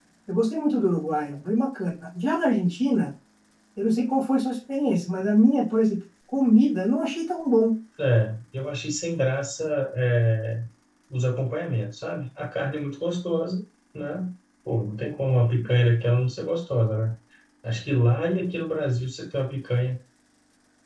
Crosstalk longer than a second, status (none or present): none